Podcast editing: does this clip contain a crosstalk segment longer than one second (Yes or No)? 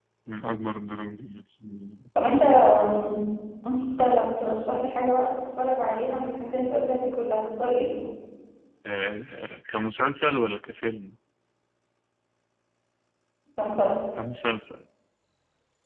No